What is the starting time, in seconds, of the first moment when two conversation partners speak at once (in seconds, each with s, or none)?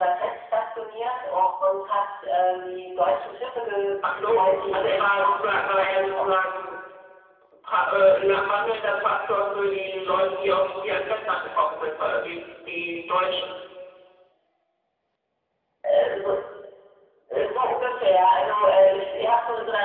4.0 s